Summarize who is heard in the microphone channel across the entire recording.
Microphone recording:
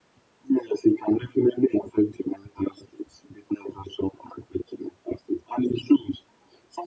echo only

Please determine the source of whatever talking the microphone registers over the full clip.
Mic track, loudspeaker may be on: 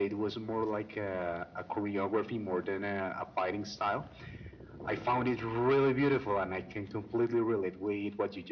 echo only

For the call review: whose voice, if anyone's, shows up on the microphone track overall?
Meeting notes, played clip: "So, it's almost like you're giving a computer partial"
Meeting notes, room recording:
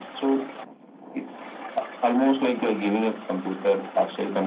echo only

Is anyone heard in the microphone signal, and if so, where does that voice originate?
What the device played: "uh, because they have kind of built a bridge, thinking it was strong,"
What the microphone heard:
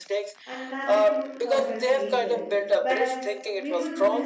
both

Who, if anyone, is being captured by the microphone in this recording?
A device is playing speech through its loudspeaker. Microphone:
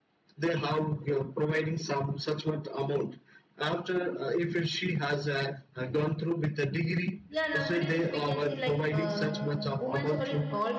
both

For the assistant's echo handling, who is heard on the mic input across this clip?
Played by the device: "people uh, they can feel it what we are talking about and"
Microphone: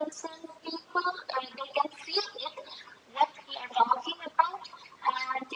echo only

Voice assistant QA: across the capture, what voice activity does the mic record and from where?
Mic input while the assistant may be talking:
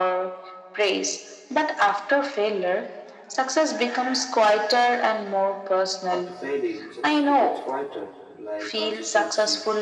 both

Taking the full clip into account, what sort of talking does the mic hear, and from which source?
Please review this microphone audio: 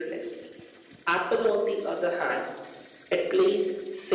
echo only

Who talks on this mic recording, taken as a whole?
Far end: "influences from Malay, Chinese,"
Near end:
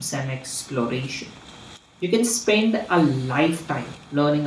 user only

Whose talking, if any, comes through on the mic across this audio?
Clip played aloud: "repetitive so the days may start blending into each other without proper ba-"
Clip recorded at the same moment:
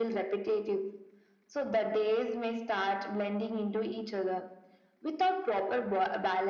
echo only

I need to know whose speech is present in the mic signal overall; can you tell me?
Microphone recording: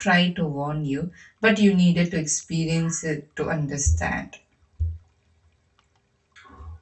user only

